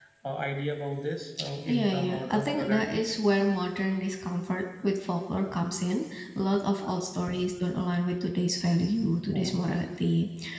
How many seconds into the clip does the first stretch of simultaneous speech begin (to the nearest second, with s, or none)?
2 s